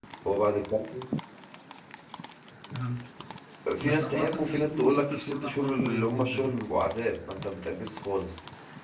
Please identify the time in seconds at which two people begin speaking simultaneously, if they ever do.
3.9 s

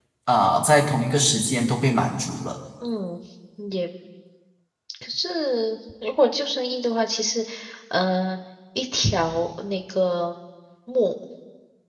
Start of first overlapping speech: none

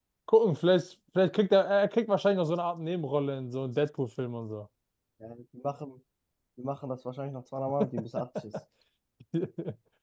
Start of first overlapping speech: none

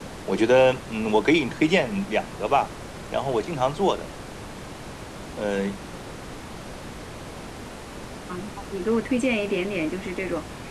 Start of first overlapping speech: none

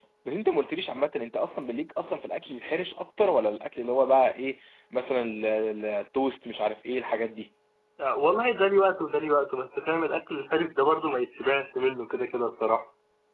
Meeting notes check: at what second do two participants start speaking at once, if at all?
none

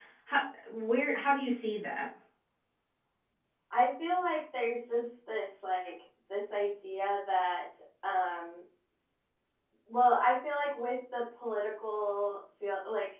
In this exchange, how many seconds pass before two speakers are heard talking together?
none

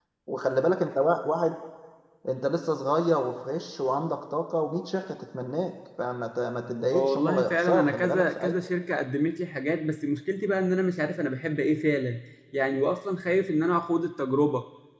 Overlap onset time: 6.9 s

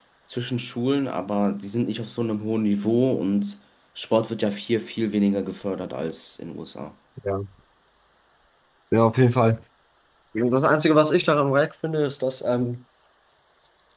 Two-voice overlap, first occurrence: none

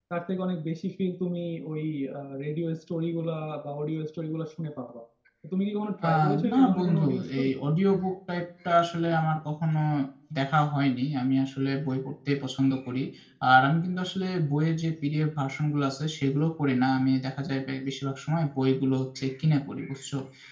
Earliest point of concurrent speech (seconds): 6.1 s

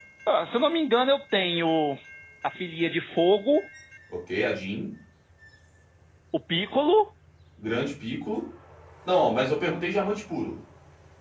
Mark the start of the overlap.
none

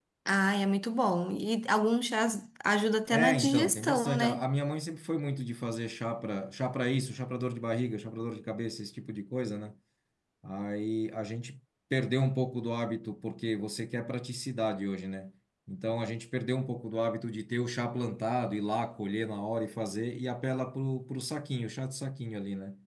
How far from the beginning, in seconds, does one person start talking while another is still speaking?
3.1 s

